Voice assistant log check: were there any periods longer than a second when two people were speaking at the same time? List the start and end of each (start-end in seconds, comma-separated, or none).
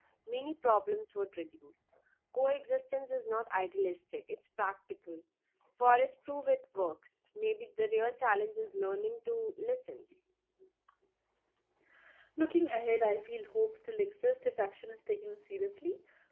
none